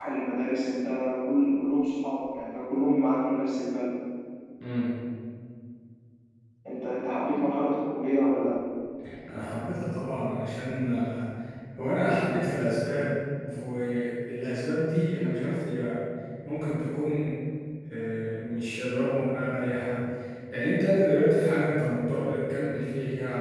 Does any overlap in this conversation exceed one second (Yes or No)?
No